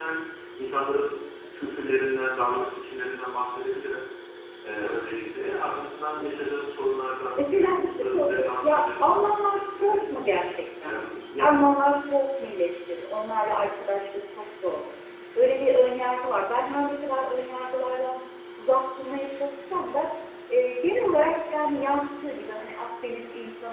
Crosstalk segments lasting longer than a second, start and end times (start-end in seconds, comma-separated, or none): 7.3-10.1